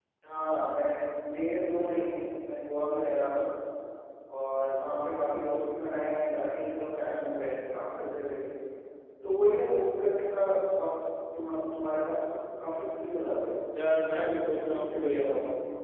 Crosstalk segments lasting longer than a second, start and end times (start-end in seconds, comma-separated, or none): 14.1-15.3